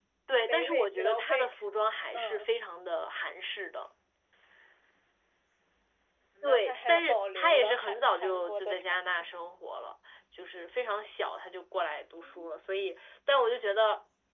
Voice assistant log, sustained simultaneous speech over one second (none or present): present